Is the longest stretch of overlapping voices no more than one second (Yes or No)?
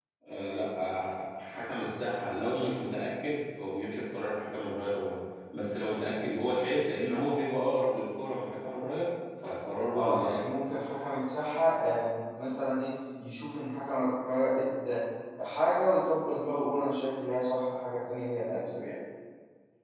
Yes